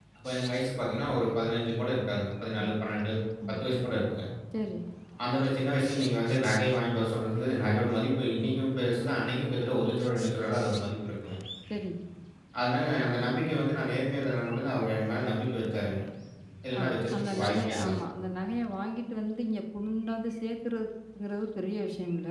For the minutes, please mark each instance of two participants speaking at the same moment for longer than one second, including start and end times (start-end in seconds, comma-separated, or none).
16.8-18.0